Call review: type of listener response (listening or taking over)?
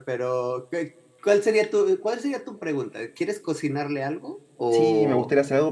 taking over